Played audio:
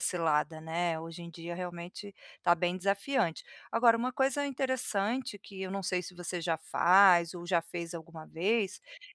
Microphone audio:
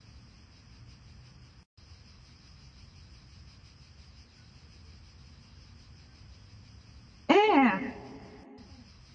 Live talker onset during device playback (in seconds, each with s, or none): 7.3 s